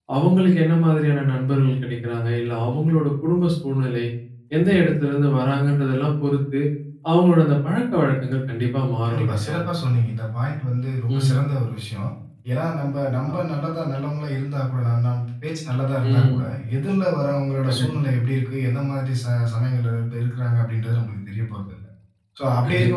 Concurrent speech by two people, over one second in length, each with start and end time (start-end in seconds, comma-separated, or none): none